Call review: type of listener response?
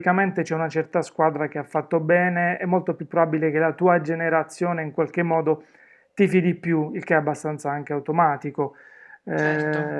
listening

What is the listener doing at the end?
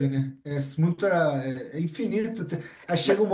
listening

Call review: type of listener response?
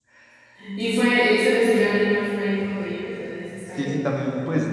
taking over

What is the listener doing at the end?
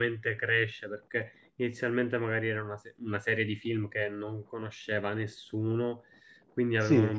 listening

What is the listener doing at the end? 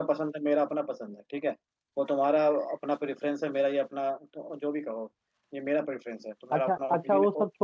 taking over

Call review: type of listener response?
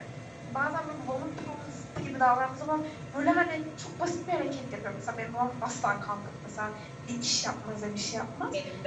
listening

